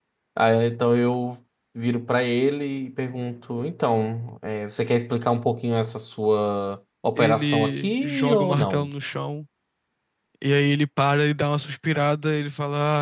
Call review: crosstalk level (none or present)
present